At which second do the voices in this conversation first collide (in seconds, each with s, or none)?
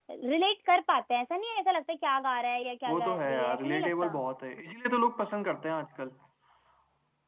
2.9 s